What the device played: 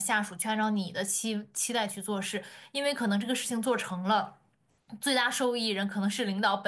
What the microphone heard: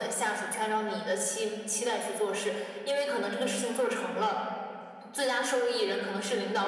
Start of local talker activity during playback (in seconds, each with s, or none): none